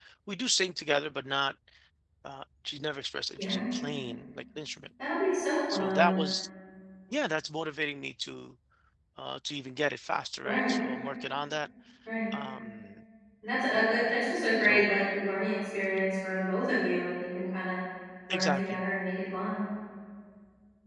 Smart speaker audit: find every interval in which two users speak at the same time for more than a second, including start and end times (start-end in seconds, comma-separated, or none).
none